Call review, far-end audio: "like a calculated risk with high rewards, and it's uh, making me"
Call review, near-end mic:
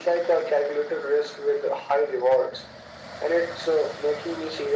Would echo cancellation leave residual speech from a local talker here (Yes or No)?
No